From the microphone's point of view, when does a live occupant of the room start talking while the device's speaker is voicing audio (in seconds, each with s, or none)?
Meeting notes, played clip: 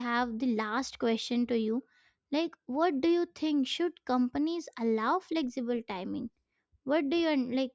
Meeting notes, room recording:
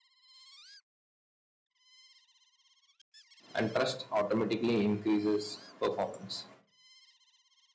3.5 s